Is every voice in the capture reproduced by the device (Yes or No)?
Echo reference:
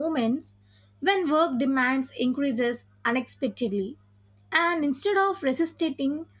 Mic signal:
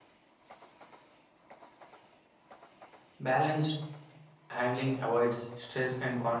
No